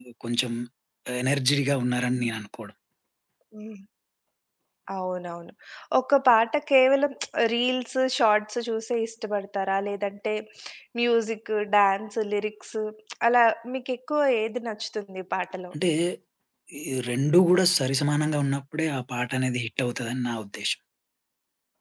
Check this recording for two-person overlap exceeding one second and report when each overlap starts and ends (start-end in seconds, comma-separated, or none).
none